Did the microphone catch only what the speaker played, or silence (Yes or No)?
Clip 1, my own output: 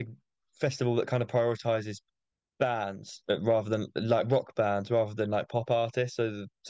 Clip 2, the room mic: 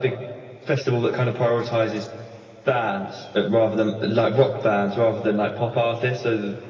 Yes